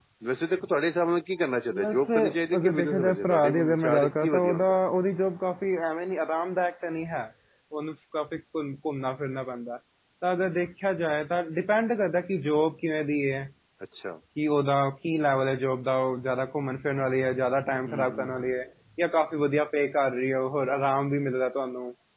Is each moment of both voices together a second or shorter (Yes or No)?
No